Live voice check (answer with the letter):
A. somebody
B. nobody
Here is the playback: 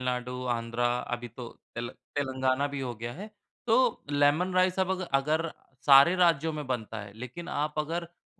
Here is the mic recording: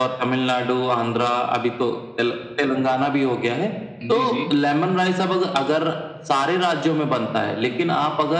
A